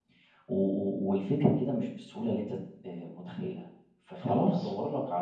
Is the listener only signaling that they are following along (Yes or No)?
Yes